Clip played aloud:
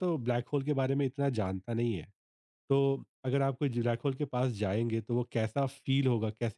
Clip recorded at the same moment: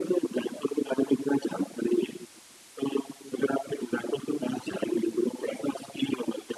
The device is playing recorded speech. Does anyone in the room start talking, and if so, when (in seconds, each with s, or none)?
none